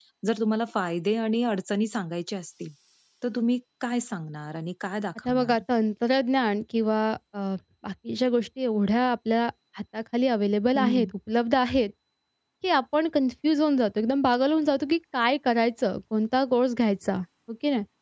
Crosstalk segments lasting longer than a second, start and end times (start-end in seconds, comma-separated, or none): none